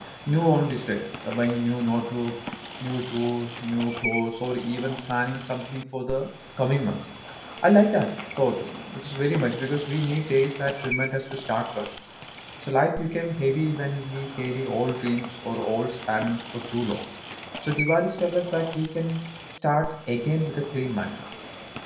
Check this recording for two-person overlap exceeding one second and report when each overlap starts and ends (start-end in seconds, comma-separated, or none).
none